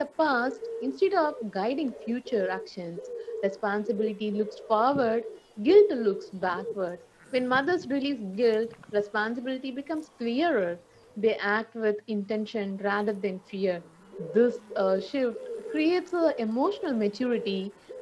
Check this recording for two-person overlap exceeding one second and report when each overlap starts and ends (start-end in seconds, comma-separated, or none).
none